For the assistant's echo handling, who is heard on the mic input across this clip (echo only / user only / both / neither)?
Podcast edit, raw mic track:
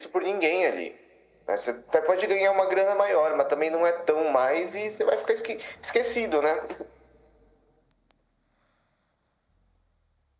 echo only